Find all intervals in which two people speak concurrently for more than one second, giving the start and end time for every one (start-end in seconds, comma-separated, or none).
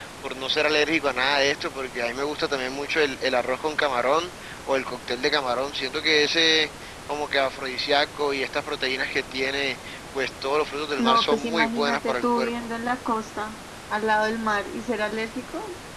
11.0-12.5